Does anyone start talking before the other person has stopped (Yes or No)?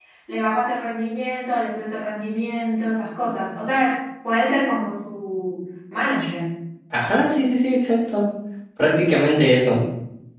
No